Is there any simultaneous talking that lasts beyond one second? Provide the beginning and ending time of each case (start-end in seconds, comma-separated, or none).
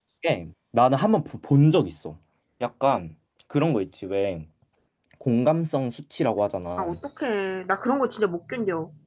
none